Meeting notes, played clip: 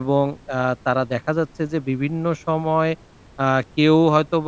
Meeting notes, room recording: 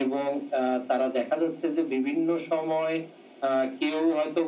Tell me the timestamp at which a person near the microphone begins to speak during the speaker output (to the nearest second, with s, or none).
none